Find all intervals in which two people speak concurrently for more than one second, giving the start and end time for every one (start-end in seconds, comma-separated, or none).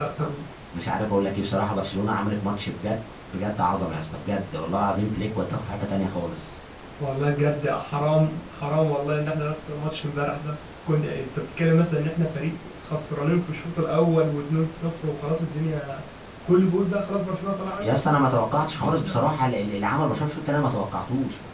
none